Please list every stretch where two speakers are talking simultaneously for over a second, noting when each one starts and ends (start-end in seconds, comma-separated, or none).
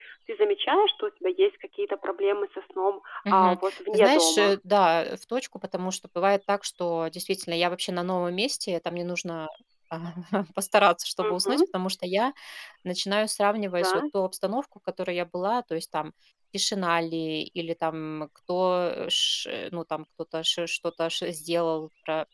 3.3-4.5